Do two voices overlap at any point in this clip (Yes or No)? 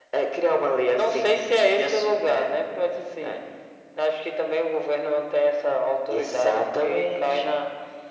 Yes